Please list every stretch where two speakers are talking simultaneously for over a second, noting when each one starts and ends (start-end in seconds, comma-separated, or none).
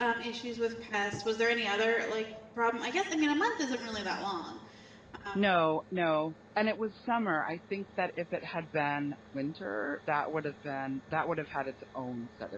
none